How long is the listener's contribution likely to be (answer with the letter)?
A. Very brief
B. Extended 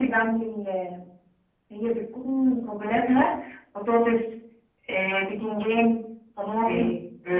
A